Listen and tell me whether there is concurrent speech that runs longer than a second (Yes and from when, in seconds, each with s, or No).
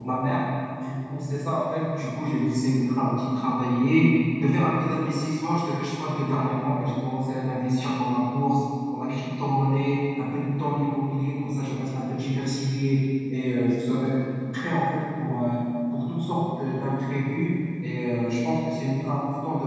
No